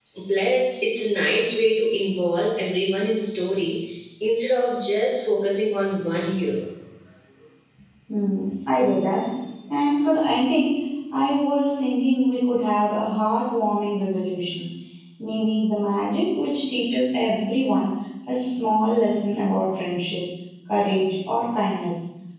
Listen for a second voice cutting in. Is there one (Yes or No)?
No